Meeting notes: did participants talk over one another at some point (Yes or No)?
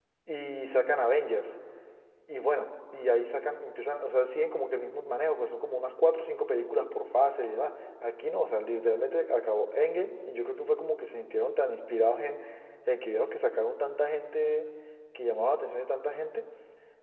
No